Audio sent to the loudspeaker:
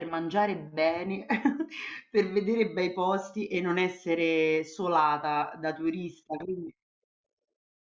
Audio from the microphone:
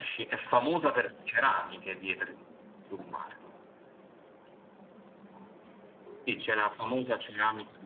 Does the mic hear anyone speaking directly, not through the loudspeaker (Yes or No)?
Yes